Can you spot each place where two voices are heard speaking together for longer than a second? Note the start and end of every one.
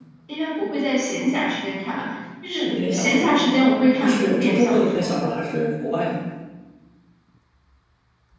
2.6-5.1

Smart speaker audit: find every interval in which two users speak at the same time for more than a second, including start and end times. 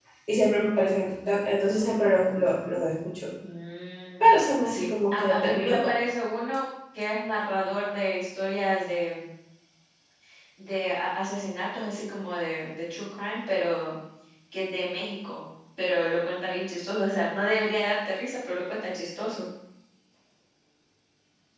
4.7-6.0

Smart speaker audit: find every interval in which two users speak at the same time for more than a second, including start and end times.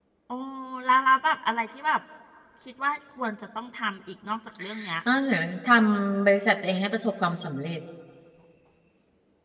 none

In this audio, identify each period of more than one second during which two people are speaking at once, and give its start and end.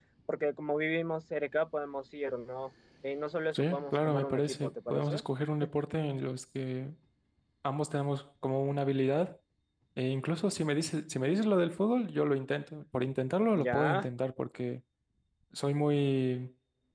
3.5-5.2

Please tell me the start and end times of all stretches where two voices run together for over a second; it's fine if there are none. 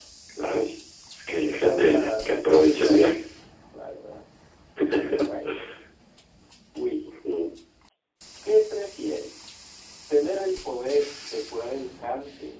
1.4-3.1

